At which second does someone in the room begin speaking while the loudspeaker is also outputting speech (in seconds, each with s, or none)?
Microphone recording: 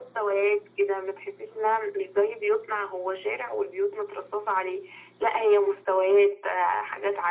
none